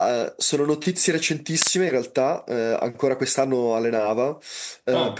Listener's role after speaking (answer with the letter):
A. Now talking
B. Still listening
B